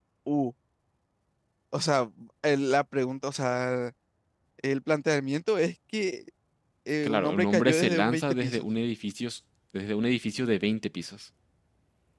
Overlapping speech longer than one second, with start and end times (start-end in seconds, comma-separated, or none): 7.0-8.6